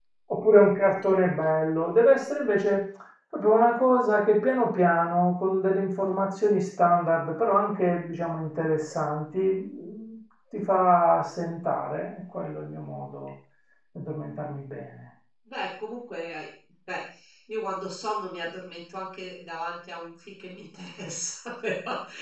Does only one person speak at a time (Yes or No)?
Yes